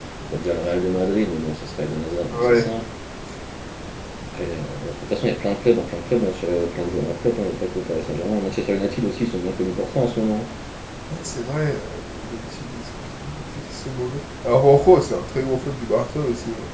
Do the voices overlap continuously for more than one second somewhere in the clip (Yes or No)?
No